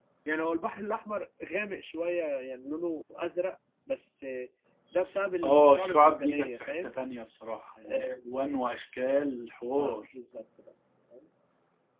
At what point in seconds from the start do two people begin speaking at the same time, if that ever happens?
5 s

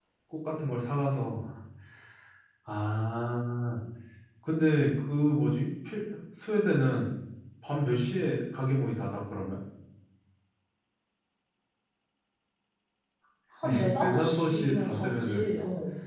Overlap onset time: 14 s

